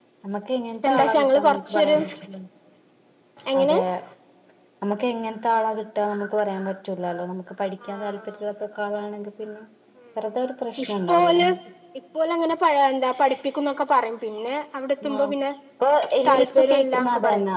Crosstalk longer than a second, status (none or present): present